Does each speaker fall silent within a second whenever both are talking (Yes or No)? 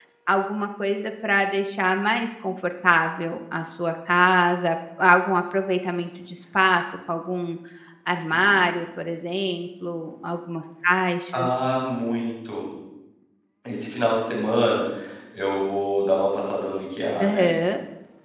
Yes